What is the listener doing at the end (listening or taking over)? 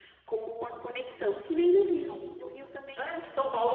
taking over